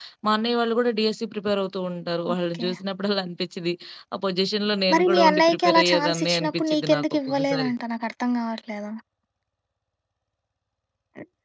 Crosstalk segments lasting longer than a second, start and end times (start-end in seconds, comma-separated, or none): 4.9-7.7